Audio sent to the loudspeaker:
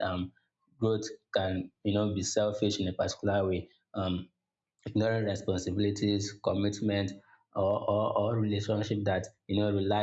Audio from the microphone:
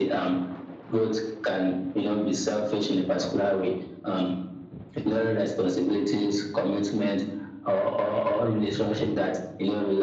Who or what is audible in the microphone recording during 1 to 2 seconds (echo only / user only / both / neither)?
echo only